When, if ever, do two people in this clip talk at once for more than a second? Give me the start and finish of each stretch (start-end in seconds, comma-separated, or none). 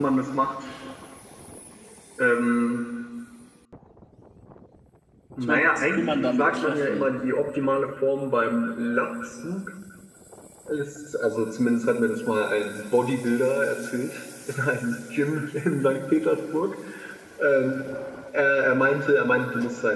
5.4-7.0